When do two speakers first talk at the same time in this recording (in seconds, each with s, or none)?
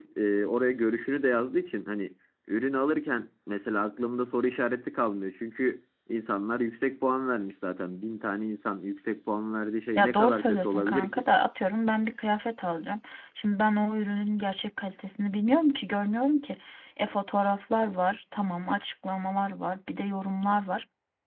10.0 s